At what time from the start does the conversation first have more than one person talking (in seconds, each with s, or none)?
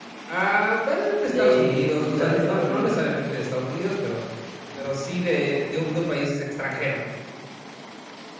1.3 s